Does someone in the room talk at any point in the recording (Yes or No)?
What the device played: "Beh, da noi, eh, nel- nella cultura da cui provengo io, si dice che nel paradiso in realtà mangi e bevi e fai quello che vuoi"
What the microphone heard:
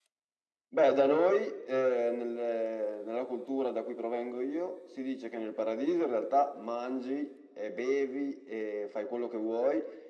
No